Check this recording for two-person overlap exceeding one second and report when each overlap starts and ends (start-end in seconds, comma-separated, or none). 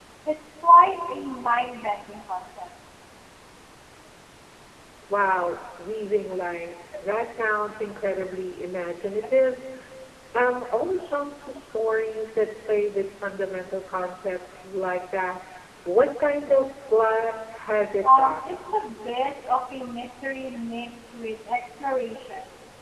none